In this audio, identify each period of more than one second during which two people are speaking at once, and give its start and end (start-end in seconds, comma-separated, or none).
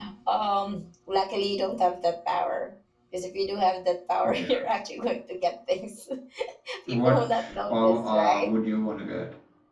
6.9-8.5